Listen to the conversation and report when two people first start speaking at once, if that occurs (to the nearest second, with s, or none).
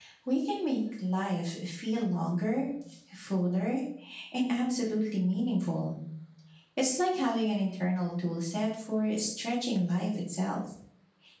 none